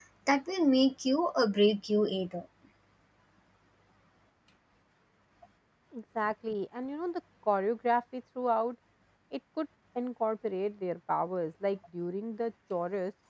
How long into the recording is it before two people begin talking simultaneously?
none

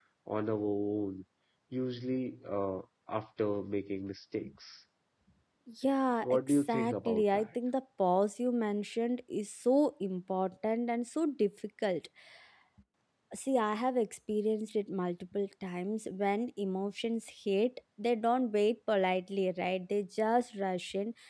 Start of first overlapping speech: 6 s

